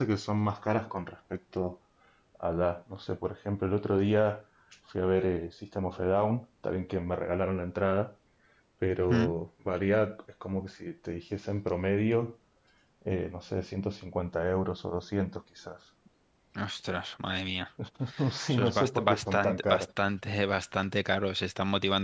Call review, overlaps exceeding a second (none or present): present